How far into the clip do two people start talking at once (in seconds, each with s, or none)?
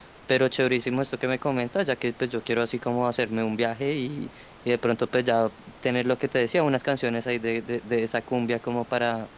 none